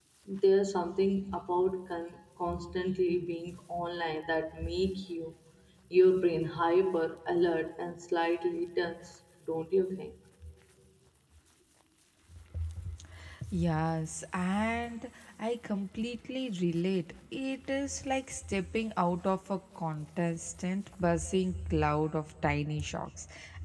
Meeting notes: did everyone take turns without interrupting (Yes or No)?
Yes